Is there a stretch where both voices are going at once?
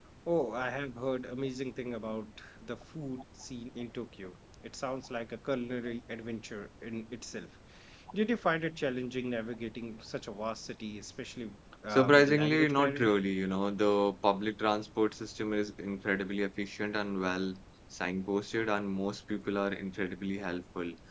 Yes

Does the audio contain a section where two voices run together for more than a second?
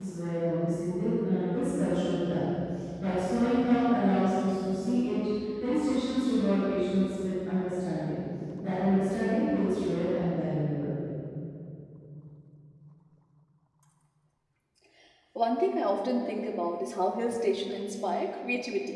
No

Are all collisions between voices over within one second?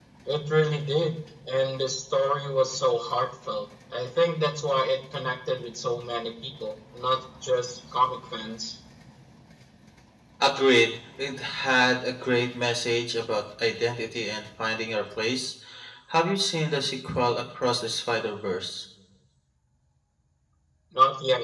Yes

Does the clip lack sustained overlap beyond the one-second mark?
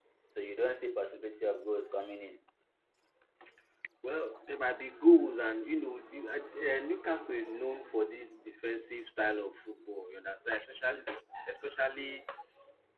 Yes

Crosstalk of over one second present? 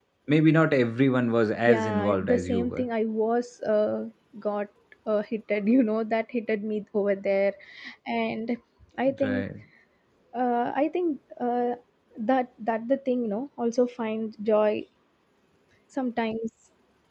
Yes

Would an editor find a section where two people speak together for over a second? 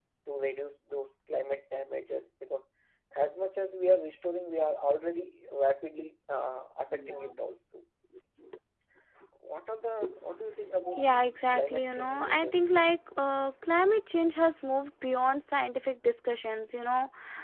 Yes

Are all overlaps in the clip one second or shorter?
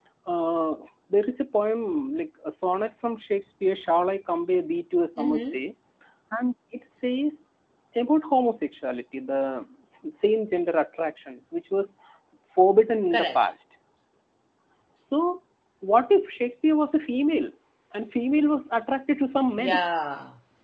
Yes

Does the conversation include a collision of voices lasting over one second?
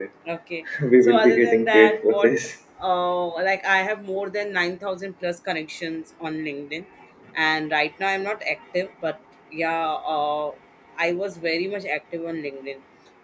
Yes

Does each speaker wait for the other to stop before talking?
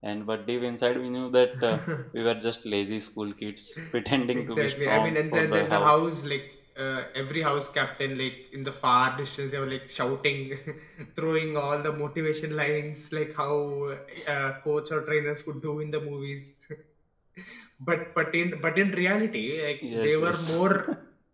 No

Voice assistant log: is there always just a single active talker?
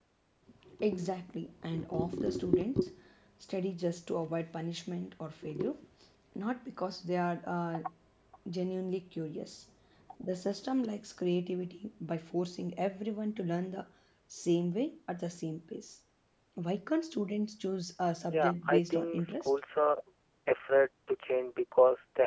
No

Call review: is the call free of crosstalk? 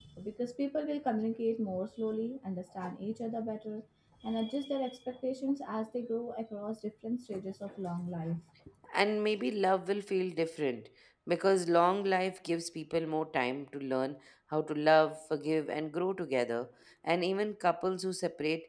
Yes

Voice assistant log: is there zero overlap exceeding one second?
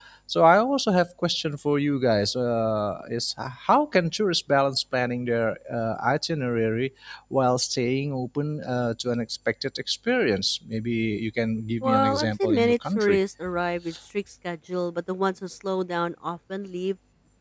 No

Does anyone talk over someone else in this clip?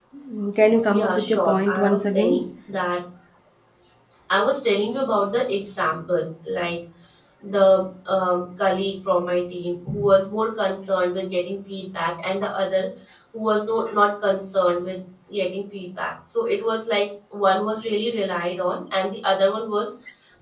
Yes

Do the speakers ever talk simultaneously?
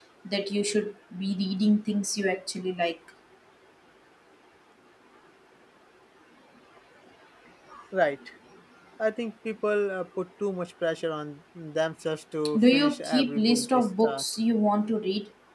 Yes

